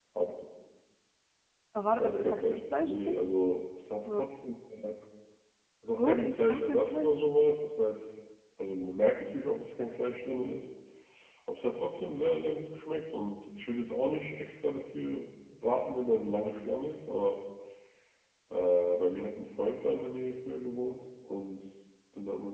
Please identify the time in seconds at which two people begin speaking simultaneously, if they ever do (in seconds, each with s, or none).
2.0 s